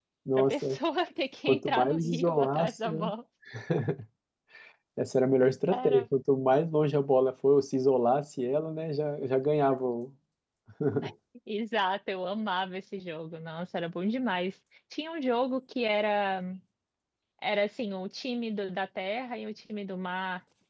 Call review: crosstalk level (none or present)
present